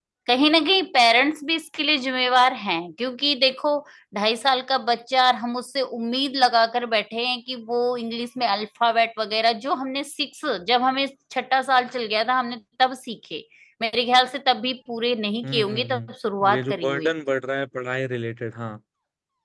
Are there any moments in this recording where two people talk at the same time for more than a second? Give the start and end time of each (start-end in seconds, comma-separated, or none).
15.4-17.1